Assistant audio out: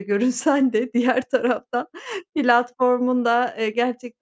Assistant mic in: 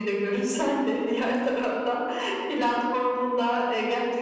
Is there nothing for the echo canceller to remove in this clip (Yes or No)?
No